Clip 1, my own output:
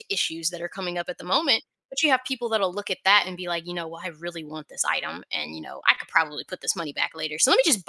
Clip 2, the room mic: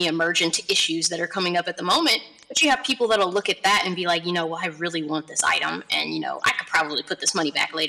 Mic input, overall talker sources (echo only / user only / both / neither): echo only